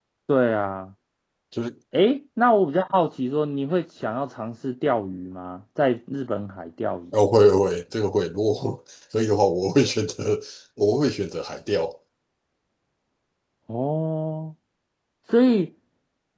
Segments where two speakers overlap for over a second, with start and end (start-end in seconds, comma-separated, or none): none